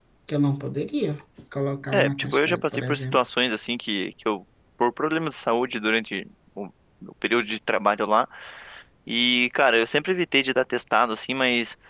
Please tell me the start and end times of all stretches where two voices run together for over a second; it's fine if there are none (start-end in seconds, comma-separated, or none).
1.9-3.2